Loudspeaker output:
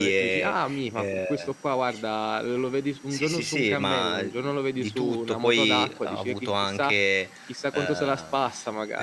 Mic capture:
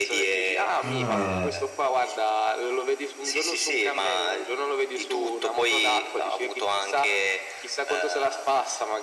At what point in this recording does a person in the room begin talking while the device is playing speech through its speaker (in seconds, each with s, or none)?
0.8 s